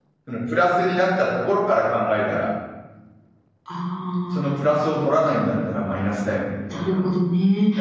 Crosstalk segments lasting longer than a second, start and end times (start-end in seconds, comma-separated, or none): none